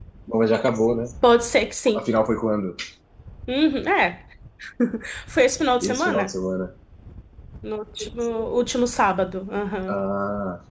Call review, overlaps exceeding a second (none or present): none